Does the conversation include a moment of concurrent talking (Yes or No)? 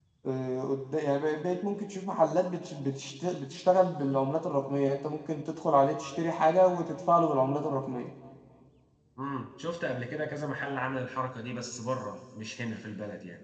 No